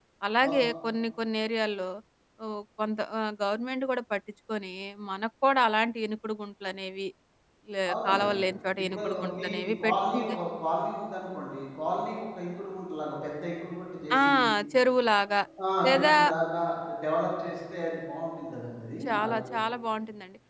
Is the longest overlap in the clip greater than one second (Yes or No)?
Yes